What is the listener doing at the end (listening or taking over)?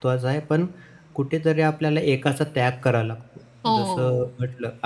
listening